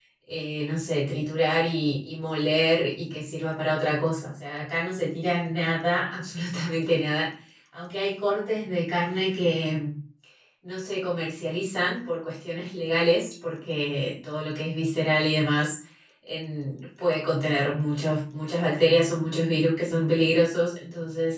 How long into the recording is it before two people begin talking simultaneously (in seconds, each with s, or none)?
none